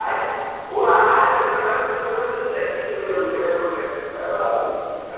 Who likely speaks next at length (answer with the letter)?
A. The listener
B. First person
B